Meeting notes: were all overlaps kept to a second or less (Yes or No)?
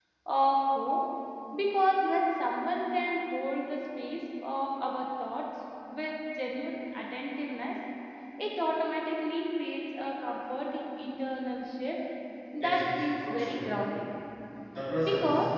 No